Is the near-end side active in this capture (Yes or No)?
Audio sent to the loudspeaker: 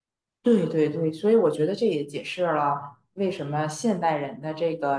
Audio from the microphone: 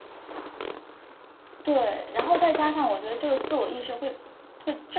Yes